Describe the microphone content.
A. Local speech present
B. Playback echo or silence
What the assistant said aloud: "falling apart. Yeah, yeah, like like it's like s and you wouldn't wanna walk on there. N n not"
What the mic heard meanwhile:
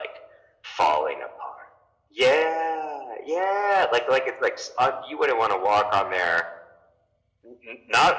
B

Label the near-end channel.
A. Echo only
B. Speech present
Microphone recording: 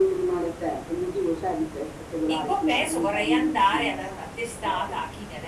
B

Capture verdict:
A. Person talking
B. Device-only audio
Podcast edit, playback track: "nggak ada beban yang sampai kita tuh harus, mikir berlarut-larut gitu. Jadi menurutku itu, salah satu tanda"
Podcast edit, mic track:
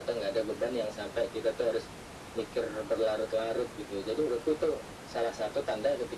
B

